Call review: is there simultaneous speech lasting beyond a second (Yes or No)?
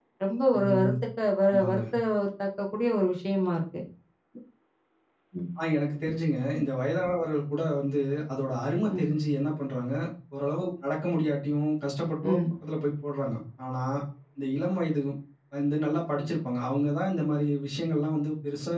No